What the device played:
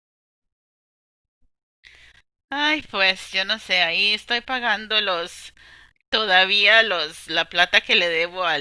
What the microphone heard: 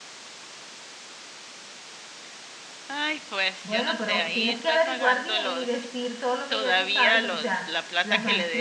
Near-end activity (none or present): present